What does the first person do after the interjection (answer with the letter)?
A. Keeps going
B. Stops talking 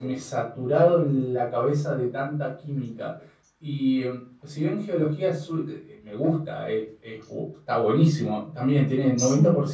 A